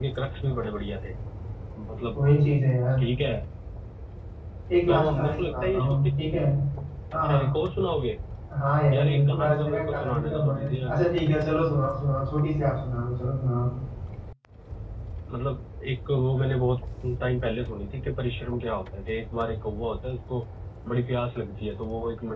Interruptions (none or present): present